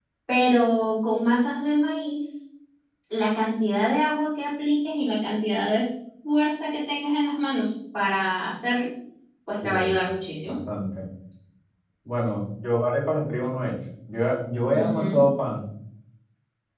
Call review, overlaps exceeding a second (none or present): none